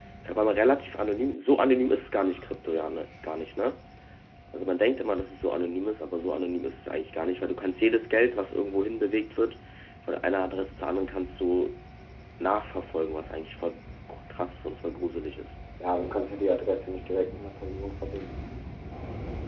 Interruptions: none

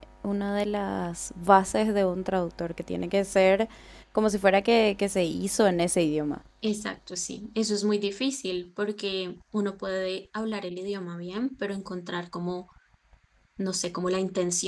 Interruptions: none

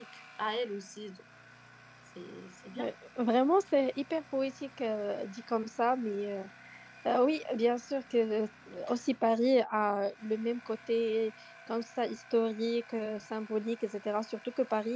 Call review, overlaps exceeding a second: none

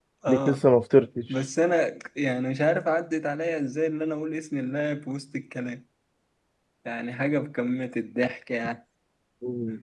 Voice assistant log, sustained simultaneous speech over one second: none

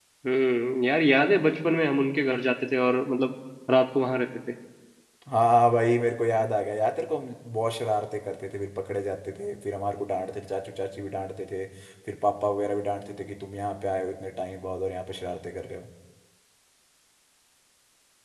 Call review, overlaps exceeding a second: none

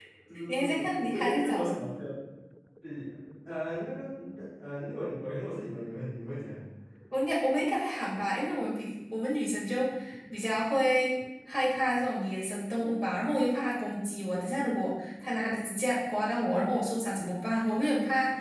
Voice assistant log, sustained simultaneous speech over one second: present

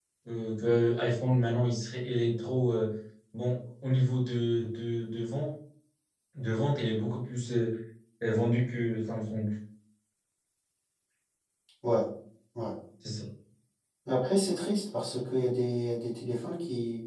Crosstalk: none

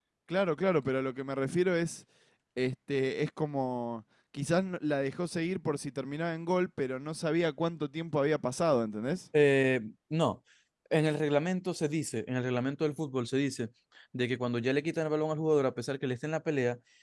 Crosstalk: none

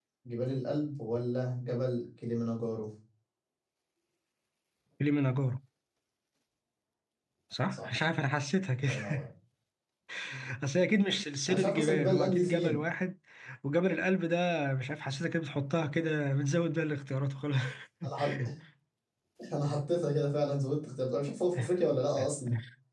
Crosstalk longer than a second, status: present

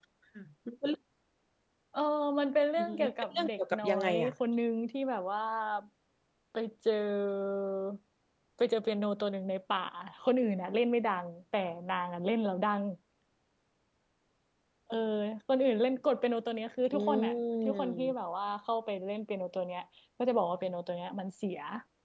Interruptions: present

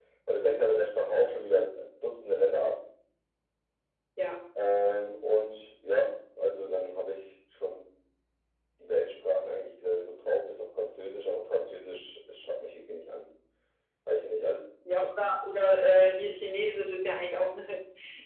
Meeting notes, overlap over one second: none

